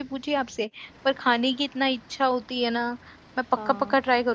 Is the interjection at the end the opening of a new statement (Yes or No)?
Yes